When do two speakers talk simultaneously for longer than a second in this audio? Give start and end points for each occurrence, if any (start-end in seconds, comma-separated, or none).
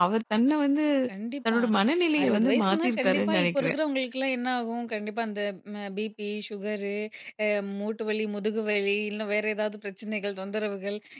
2.2-3.7